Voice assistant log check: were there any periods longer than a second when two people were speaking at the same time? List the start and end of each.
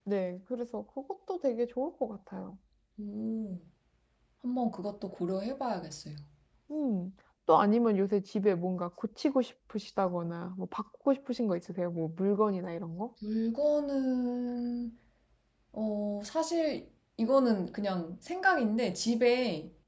none

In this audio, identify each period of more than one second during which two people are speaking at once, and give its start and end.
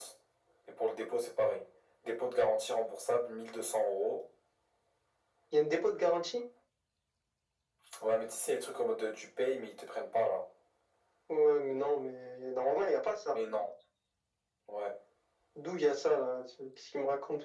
none

